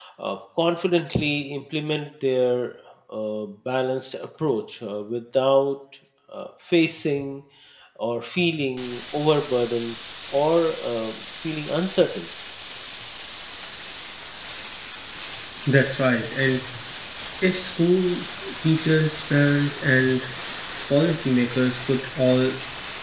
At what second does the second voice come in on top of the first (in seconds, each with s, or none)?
none